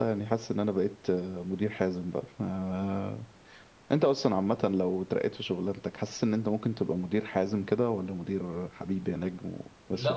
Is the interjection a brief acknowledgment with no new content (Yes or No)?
No